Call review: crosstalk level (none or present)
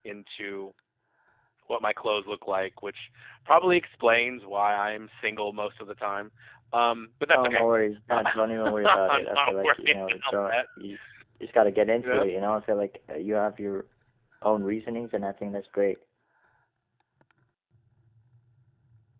present